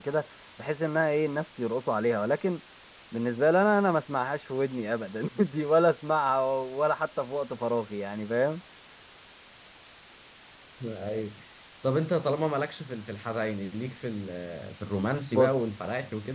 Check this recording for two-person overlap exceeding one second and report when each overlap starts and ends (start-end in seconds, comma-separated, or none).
none